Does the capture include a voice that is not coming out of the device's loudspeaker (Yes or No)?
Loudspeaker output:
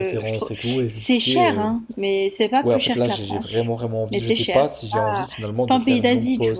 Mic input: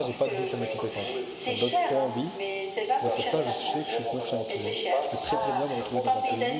Yes